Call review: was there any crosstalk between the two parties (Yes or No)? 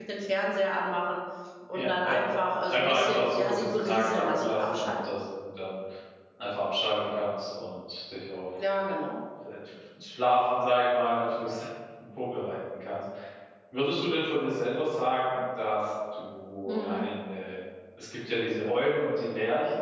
Yes